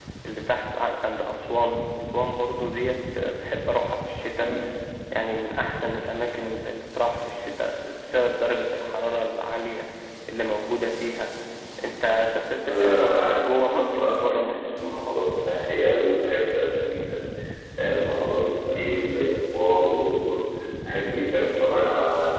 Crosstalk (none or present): present